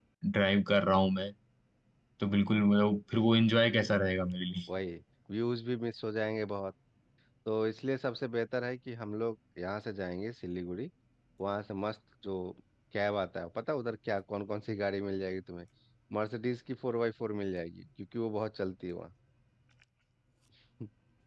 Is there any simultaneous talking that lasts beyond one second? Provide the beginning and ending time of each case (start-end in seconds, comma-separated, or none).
none